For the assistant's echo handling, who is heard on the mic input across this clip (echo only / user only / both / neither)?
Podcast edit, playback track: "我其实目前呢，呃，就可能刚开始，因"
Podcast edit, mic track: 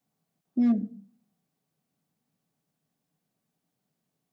user only